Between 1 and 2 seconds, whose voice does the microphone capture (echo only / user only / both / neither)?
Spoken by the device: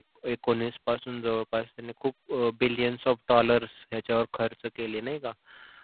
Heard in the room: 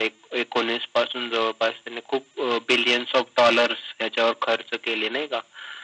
echo only